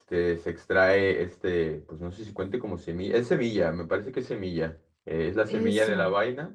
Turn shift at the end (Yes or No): No